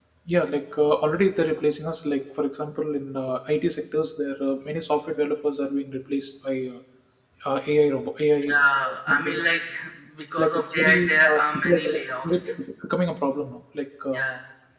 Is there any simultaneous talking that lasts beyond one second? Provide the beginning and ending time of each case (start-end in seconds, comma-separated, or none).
10.4-12.2